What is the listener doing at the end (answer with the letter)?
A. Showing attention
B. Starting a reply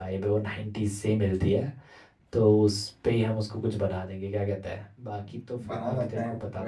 B